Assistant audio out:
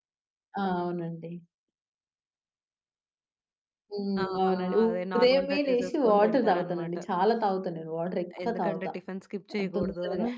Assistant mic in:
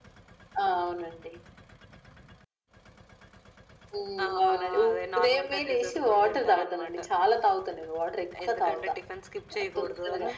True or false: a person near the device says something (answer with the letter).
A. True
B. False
B